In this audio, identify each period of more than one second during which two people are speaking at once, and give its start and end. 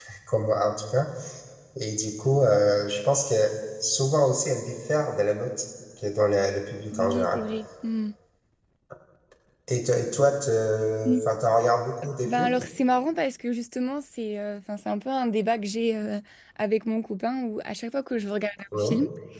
none

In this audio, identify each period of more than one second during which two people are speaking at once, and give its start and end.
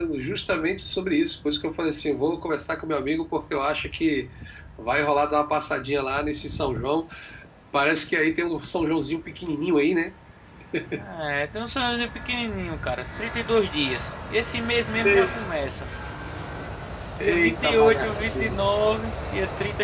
17.2-18.6

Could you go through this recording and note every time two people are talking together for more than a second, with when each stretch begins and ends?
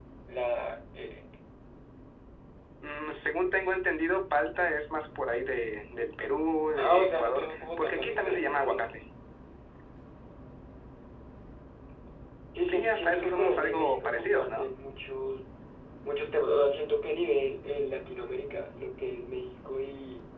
6.7-8.8, 12.7-14.7

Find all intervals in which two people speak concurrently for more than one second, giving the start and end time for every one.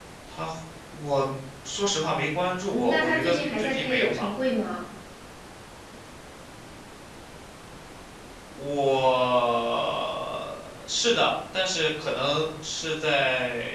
2.7-4.3

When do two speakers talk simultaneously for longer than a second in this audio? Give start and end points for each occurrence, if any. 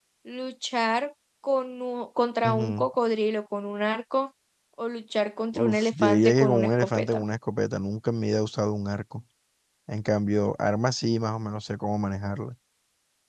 5.6-7.2

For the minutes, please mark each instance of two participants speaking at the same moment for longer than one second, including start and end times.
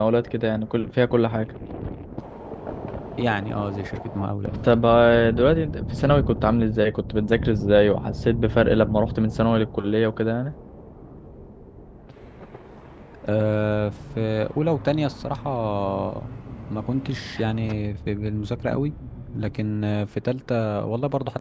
none

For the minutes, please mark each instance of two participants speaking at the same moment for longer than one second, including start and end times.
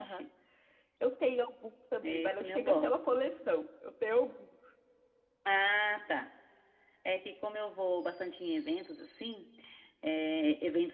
2.0-3.2

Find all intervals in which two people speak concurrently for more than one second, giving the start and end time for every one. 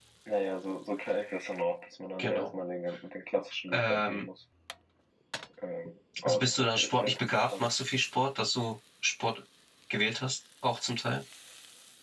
6.2-7.6

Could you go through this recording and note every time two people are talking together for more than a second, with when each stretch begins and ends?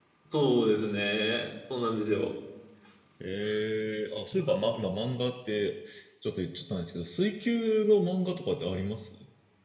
none

